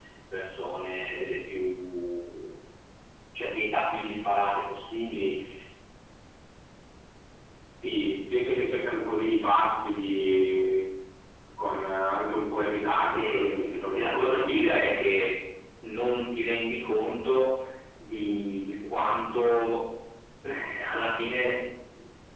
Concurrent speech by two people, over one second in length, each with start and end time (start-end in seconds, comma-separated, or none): 13.1-14.8